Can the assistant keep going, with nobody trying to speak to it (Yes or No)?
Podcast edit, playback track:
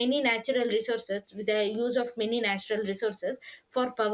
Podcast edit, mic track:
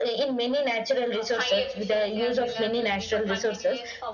No